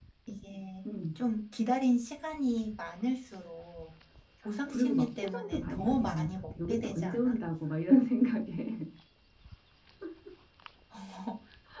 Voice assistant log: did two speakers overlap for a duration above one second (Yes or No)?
Yes